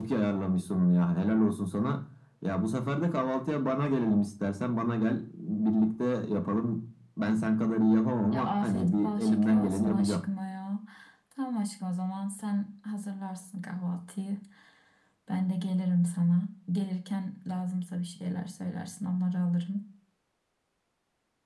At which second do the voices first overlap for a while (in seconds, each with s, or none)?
8.3 s